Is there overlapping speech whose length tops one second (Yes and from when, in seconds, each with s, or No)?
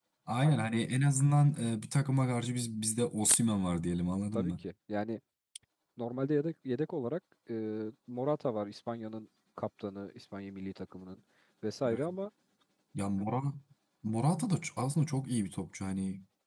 No